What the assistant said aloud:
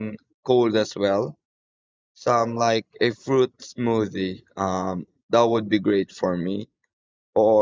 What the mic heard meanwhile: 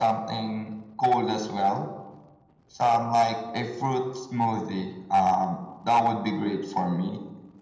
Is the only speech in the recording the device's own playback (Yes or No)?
Yes